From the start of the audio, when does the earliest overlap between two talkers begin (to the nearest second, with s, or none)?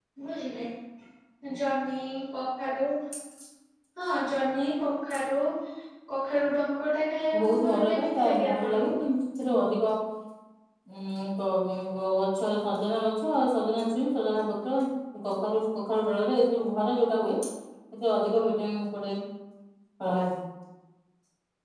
7 s